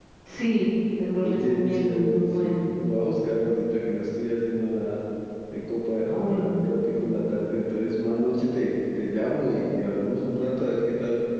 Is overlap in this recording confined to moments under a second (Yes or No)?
No